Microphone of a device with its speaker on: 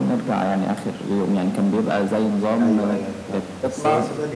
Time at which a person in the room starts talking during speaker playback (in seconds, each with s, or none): 2.6 s